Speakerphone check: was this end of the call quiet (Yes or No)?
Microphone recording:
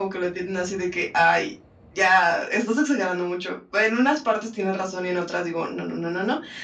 Yes